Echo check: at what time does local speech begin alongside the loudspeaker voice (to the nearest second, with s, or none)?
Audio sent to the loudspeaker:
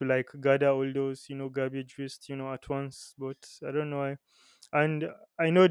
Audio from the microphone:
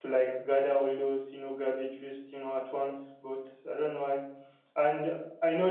none